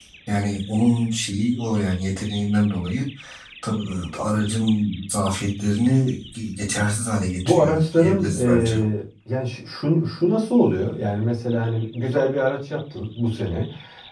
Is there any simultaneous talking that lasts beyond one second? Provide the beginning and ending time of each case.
7.5-8.7

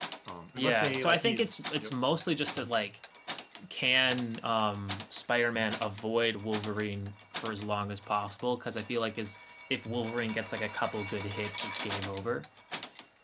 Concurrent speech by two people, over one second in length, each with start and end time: 0.6-1.9

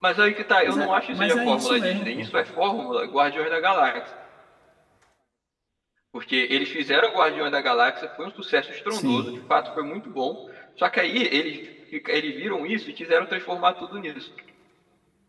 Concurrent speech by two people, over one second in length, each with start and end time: 0.6-2.3

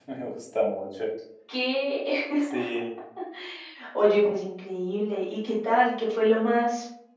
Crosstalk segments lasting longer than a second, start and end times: none

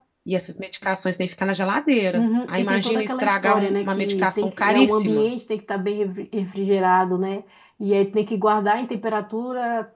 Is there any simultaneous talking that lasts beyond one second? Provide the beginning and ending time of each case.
2.1-5.3

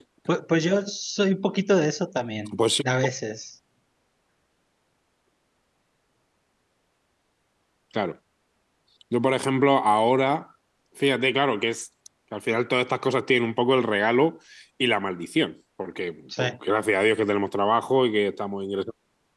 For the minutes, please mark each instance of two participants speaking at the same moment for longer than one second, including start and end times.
none

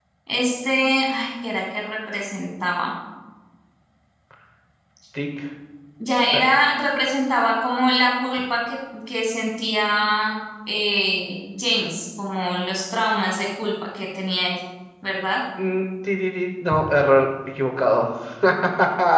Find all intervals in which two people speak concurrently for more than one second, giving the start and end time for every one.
none

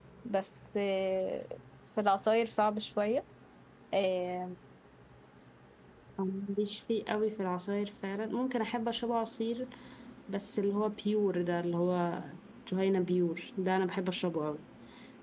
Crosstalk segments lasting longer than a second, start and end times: none

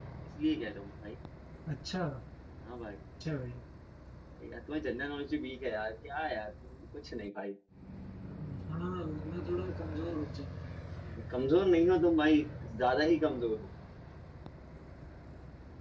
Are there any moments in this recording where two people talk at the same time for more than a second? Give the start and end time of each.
none

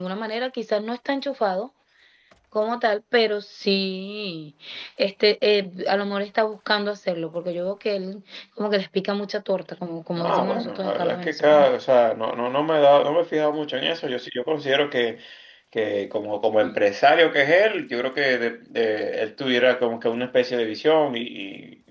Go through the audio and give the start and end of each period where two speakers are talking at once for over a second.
10.2-11.7

